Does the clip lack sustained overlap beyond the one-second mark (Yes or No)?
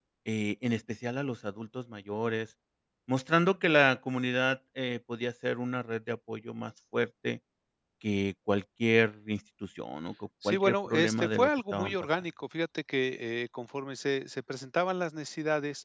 No